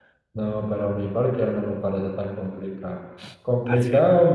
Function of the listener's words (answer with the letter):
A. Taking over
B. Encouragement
B